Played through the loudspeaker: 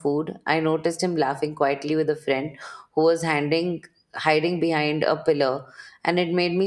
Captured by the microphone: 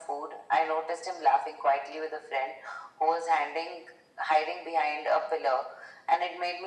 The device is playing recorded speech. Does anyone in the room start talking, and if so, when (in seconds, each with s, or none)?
none